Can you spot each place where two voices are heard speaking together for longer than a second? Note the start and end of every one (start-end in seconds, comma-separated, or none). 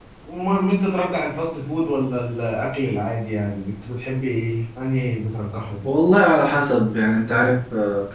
none